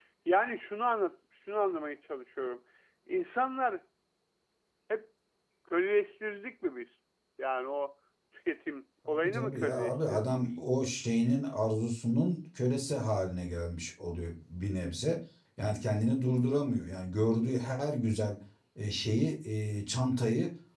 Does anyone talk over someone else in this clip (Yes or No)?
Yes